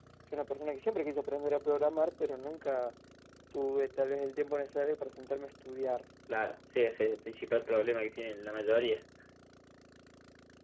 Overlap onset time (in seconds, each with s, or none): none